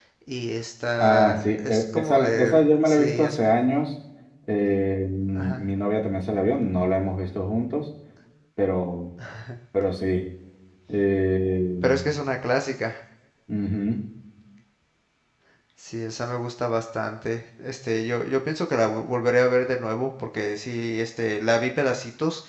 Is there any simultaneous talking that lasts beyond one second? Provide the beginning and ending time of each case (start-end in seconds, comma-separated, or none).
1.0-3.4